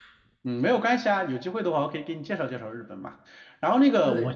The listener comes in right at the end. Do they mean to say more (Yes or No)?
No